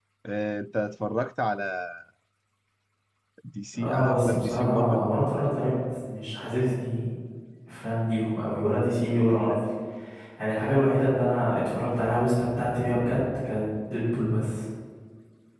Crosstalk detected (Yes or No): Yes